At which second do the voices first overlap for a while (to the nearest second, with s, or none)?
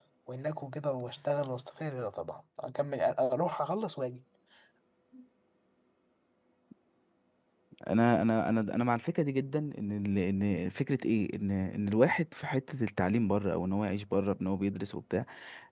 none